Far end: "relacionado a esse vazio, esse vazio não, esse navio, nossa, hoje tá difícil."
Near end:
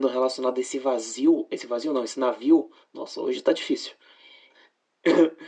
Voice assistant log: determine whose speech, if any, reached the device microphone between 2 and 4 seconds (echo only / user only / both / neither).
echo only